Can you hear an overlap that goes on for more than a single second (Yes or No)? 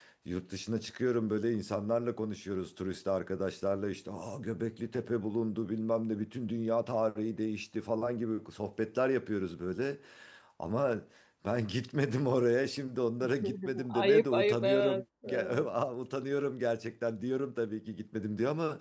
Yes